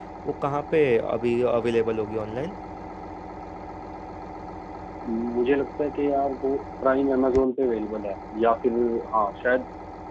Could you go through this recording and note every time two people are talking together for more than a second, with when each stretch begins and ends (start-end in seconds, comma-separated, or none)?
none